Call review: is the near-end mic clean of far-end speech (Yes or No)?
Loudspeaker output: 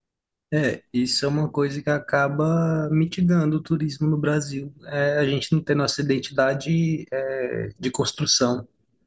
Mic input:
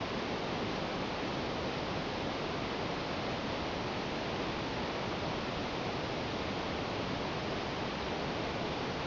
Yes